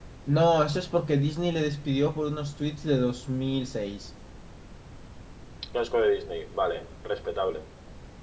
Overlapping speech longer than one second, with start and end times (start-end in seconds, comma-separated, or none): none